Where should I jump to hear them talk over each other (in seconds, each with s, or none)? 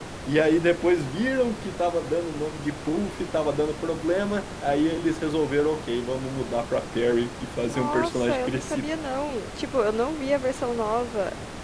7.6 s